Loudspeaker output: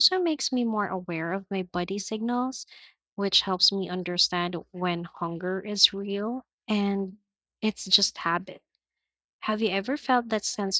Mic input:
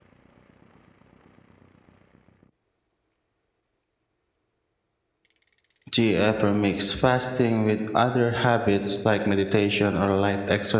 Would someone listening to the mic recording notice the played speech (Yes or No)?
No